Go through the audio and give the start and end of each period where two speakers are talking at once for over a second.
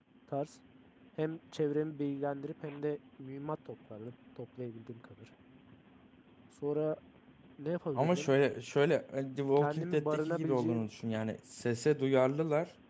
9.6-10.8

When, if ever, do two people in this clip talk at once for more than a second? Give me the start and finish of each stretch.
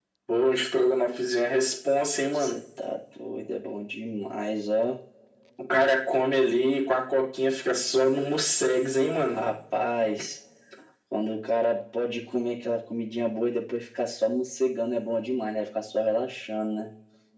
none

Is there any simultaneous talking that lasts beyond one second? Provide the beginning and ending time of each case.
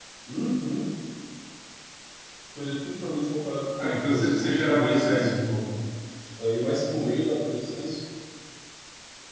3.8-5.3

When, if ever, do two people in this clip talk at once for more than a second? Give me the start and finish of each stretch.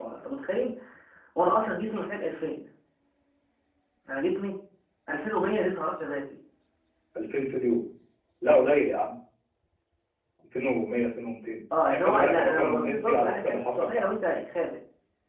11.9-14.1

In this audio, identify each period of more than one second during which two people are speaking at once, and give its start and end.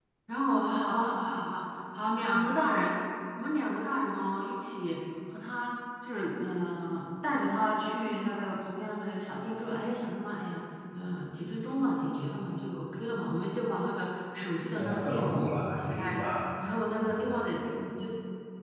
14.8-16.2

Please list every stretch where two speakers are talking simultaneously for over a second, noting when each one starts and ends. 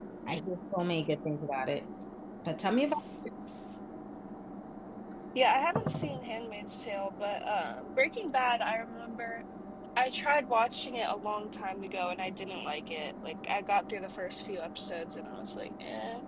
none

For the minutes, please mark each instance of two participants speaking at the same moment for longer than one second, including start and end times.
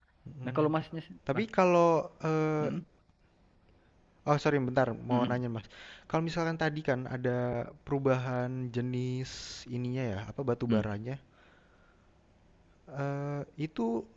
none

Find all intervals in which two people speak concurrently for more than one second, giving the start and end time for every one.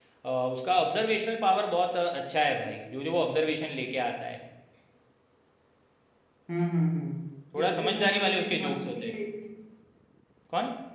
7.6-9.1

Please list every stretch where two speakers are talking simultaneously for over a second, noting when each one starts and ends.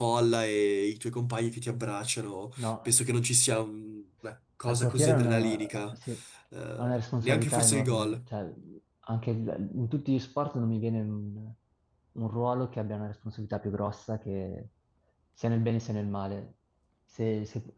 4.7-6.0, 6.8-8.2

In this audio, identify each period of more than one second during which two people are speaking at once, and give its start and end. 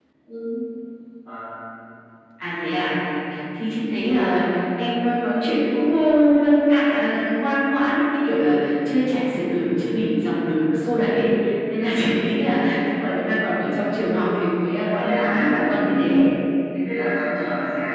14.8-16.2

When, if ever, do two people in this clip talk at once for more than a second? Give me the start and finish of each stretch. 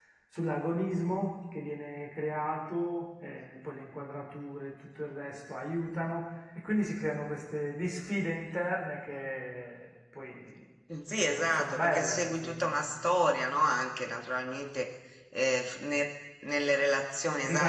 11.2-12.7

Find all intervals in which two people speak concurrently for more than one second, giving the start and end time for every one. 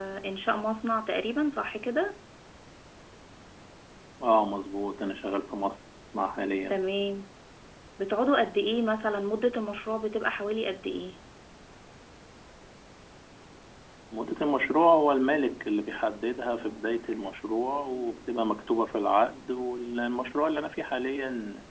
none

